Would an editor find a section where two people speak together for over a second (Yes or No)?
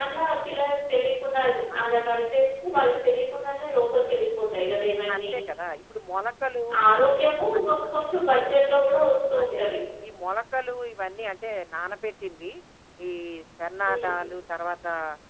No